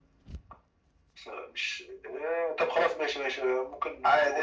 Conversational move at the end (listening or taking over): listening